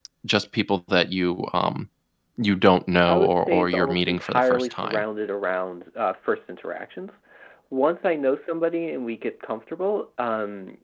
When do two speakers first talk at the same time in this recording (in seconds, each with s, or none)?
3.1 s